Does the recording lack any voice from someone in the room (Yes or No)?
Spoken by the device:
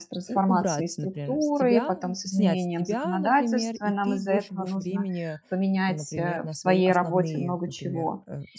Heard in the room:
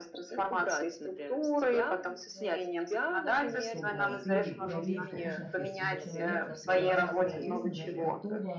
No